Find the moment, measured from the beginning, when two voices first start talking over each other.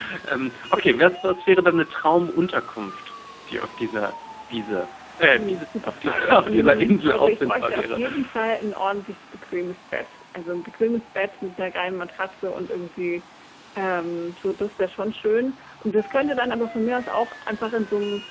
5.3 s

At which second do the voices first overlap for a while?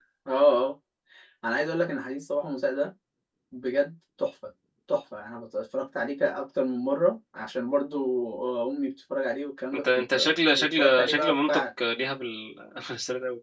9.7 s

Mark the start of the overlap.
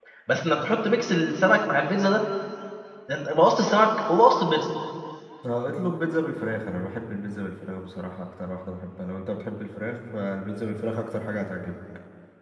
none

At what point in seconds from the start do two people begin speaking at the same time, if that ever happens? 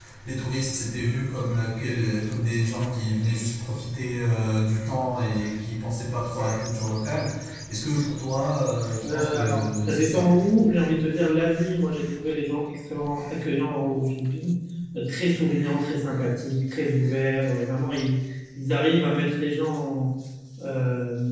9.0 s

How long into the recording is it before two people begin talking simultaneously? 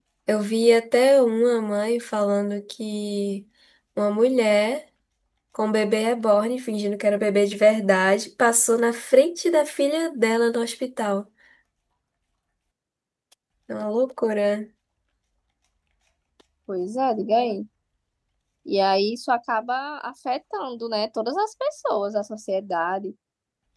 none

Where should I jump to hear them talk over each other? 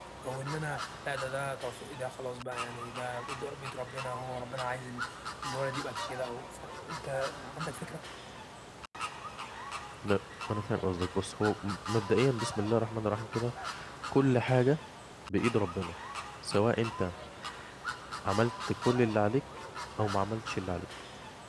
none

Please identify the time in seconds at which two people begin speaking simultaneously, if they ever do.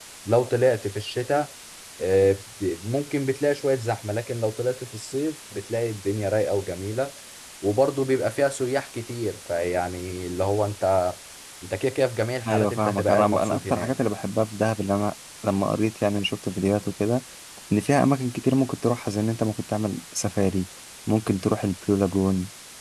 12.5 s

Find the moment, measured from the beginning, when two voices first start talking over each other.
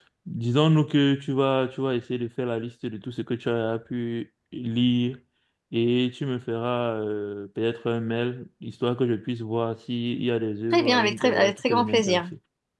10.7 s

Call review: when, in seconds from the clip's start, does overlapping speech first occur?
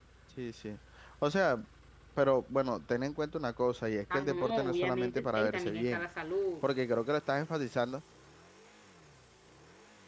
4.1 s

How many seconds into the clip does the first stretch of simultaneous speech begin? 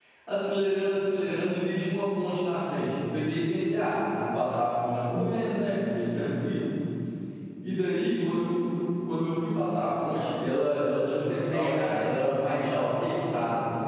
11.4 s

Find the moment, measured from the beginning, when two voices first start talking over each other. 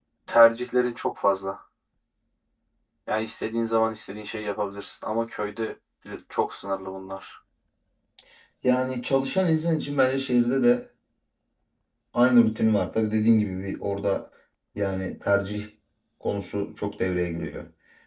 none

